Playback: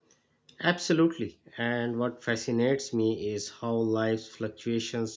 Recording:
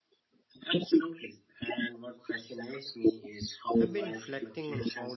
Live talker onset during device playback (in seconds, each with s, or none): 3.8 s